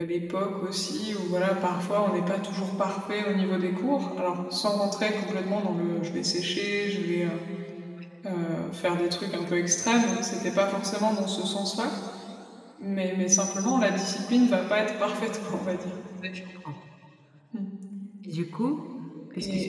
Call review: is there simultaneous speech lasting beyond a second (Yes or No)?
No